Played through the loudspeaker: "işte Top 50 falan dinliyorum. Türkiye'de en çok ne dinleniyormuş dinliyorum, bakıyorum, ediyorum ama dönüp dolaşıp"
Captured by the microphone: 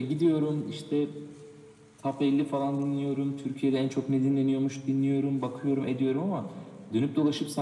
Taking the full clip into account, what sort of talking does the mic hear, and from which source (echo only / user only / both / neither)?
echo only